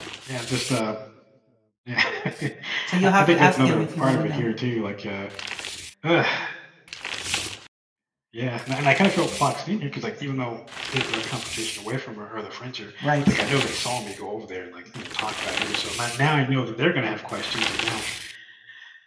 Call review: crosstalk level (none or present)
present